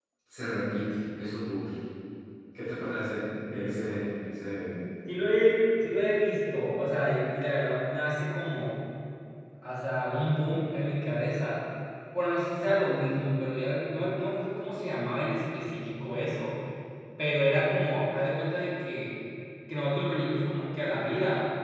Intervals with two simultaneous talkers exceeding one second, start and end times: none

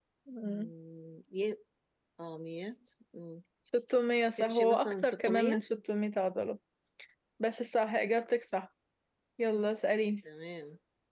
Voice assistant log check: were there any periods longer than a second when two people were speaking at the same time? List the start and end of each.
4.4-5.6

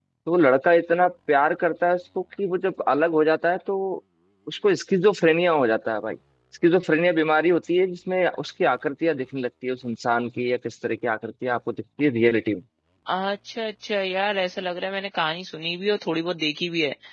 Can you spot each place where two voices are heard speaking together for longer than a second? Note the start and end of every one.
none

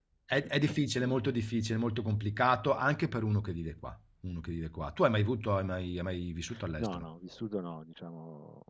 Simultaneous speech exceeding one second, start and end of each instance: none

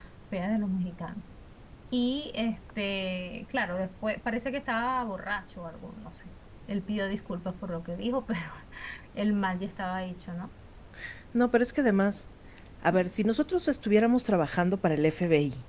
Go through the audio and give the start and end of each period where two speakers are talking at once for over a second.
none

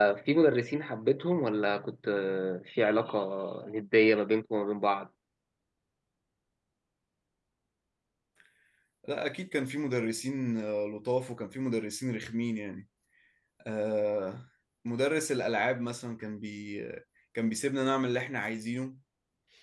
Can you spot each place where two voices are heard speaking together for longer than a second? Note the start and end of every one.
none

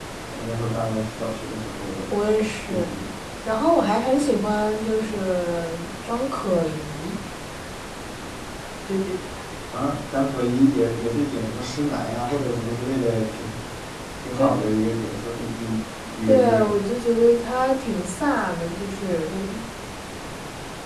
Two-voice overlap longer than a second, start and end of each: none

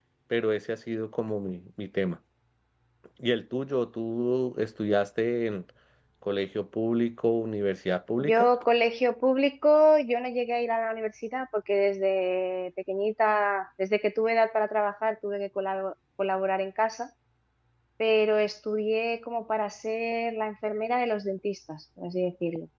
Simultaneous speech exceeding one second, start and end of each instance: none

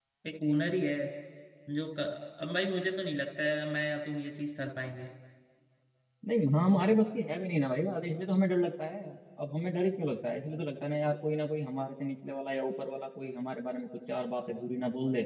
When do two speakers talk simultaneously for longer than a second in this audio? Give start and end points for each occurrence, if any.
none

